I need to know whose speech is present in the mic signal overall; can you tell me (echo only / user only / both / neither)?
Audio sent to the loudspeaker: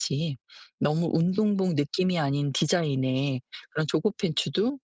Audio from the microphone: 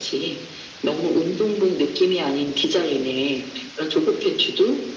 echo only